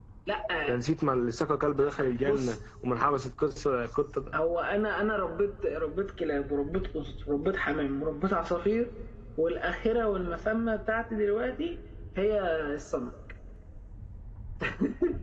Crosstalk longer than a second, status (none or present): none